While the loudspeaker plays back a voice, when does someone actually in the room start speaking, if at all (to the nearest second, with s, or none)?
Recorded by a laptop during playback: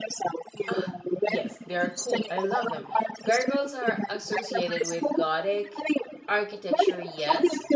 1 s